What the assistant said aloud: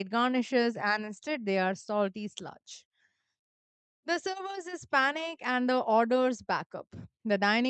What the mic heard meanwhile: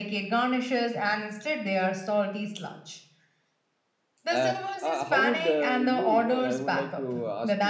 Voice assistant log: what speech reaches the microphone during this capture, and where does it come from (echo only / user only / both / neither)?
both